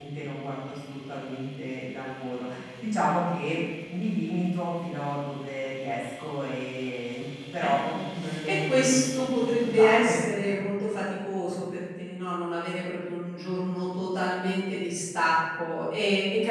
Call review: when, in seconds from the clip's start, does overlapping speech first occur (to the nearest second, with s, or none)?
8 s